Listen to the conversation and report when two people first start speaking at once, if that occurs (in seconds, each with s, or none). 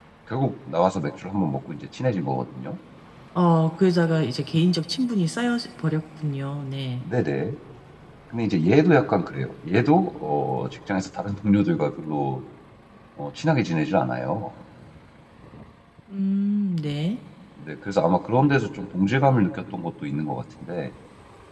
none